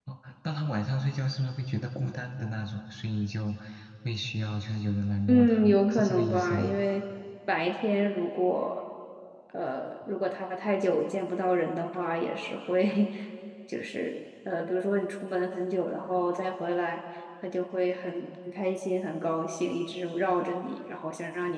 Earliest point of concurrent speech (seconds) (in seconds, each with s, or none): 5.3 s